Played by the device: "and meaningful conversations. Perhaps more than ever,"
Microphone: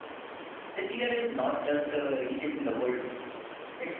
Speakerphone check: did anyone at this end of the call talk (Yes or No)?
Yes